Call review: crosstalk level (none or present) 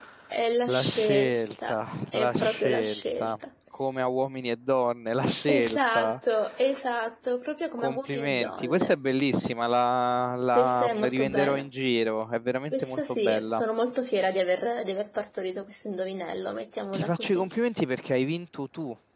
present